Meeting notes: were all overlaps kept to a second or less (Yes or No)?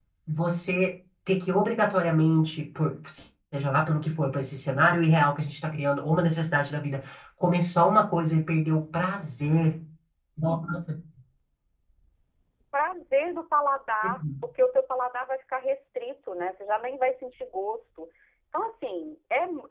Yes